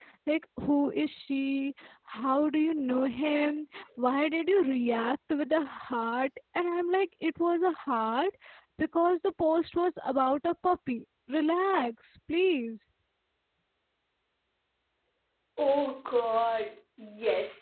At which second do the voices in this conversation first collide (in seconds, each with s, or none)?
none